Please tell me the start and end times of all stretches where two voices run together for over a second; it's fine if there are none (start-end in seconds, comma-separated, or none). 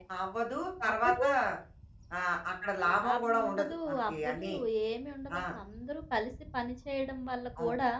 2.9-4.4